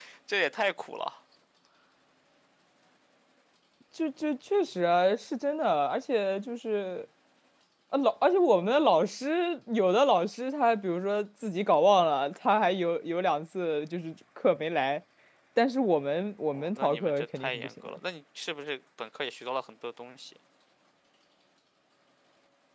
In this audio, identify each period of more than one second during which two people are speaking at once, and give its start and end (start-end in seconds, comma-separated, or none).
16.5-18.0